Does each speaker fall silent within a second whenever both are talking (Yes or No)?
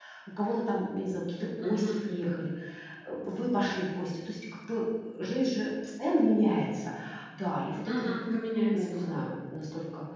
Yes